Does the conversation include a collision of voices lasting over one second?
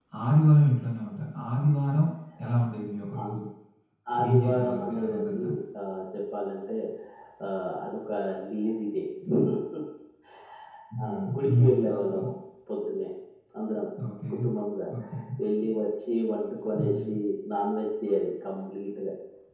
Yes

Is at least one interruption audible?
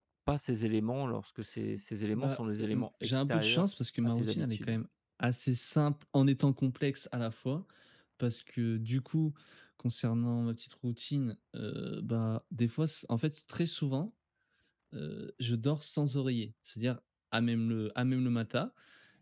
Yes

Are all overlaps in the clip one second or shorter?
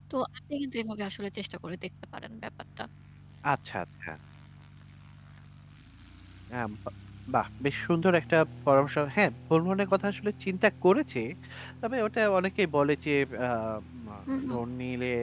Yes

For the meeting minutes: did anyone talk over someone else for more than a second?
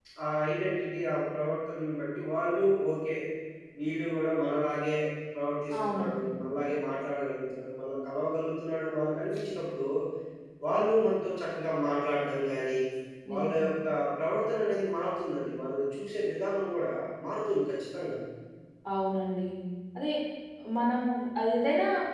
No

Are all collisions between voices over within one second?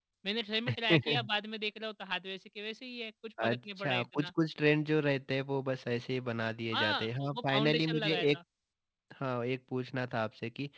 No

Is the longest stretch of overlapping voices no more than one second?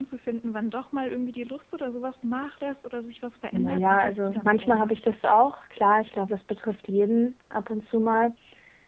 No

